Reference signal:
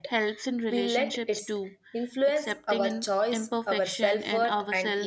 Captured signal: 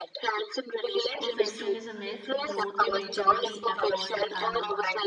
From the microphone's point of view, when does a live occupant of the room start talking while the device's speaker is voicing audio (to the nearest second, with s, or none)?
1 s